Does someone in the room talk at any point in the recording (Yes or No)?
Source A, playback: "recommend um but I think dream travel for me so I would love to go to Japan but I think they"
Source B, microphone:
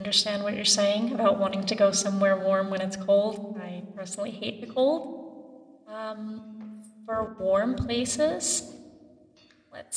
Yes